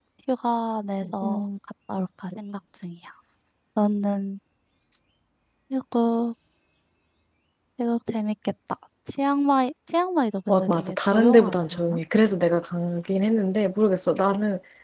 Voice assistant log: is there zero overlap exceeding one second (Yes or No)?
No